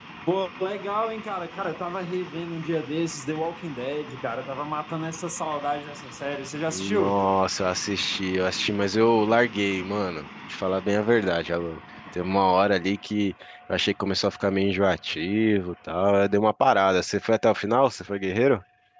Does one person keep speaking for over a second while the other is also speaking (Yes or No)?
No